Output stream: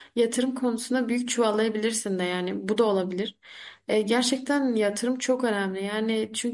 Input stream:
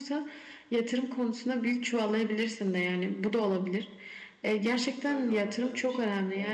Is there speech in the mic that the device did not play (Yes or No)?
Yes